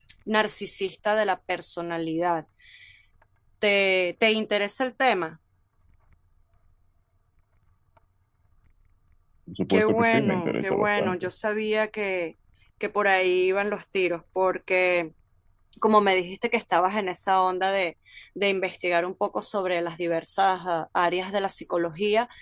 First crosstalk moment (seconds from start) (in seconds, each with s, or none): 9.7 s